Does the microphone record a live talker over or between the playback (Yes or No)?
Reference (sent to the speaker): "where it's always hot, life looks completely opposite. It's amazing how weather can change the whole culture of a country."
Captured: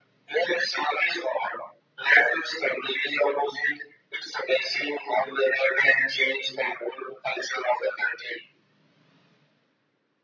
No